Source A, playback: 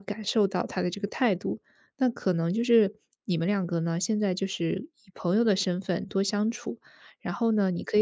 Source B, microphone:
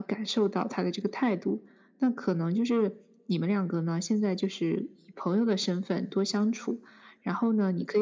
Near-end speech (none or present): none